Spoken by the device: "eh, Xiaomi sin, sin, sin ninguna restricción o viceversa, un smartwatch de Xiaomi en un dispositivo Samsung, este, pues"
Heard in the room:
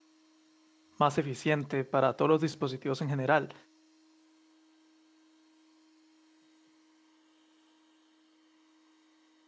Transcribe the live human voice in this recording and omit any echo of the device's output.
más eficiente para todos los dispositivos en general.

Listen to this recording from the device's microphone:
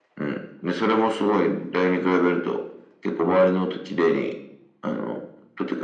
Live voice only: none

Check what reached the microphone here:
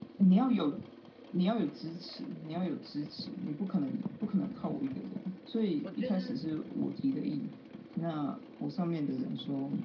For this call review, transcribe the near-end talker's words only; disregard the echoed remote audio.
我觉得

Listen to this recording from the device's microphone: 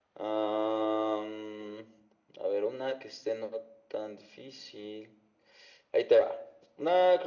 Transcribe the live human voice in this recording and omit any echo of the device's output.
none

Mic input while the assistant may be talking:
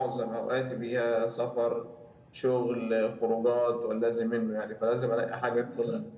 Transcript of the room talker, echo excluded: none

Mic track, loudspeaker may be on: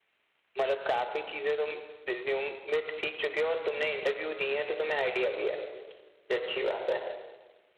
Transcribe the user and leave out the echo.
none

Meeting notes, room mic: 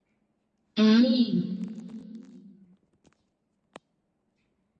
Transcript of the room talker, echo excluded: อืม

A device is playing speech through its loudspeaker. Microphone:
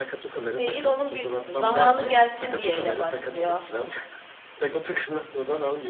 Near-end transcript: değil onun bir Zamanı gelsin diye ile başlıyor.

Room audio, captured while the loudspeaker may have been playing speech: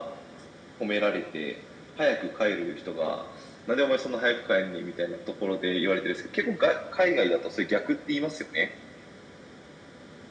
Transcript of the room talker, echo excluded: none

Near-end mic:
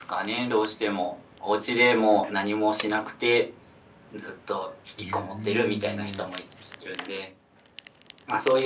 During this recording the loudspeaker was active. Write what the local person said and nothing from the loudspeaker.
いや、全然全然。

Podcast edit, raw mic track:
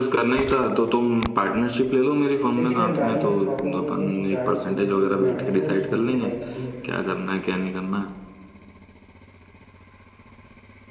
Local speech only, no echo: लेकिन यार गाड़ी में एक प्रॉब्लम ये है ना कि गाड़ी थोड़ी अपनी पुरानी है और छोटी साइज की है

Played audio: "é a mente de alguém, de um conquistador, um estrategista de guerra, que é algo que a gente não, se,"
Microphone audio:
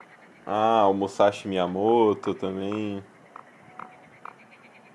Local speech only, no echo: Ah, o Musashi Miyamoto também.

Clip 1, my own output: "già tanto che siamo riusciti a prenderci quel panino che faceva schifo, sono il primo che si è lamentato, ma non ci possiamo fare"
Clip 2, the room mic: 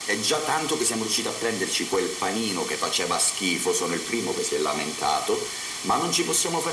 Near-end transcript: none

